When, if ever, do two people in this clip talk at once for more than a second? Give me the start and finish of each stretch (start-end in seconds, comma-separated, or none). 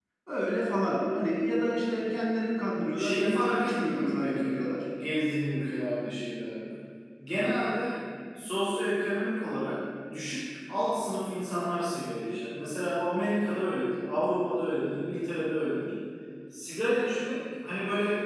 3.0-4.6